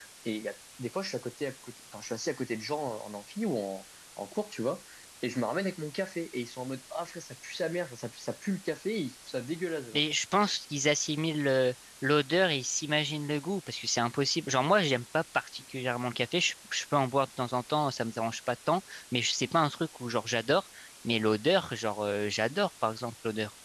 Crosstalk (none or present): none